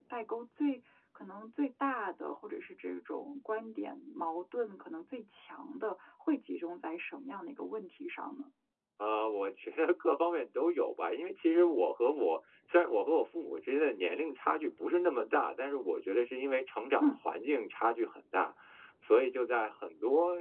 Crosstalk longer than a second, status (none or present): none